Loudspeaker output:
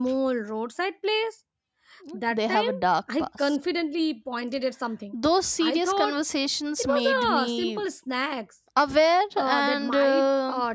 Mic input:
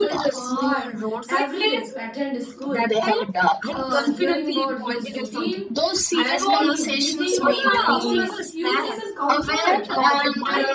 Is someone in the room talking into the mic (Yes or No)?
Yes